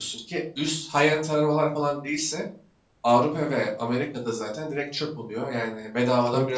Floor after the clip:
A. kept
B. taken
B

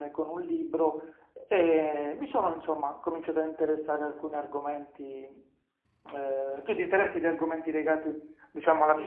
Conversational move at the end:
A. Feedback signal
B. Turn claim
B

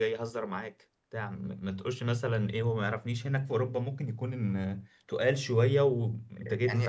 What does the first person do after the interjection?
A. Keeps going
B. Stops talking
B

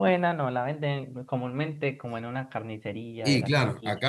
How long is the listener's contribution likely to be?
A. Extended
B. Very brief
A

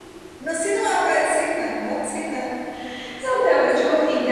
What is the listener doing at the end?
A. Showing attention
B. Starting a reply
B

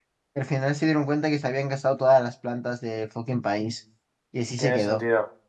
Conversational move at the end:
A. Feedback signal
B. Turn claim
B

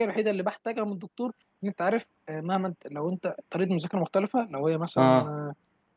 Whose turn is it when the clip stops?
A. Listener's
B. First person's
B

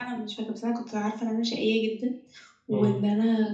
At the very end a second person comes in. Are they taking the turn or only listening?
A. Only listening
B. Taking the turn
A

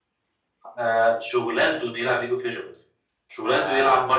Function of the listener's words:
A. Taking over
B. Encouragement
A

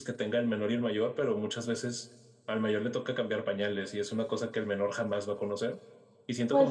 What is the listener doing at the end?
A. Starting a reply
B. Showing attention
B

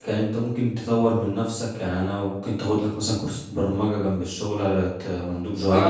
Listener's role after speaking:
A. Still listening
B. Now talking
B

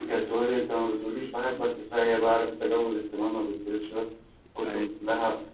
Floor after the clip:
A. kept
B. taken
A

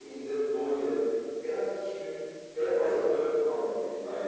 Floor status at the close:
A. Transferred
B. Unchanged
A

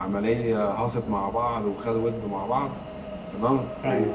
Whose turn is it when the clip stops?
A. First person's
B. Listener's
A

